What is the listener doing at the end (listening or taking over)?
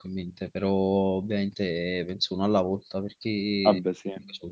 listening